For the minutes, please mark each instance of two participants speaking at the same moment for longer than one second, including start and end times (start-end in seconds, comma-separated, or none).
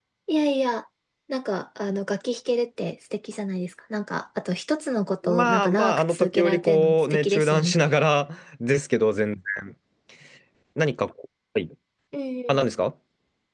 5.2-7.7